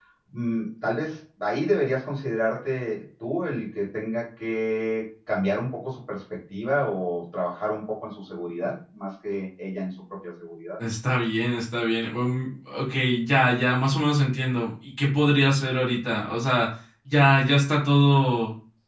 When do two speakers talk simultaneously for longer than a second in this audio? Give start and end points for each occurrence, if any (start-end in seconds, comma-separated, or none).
none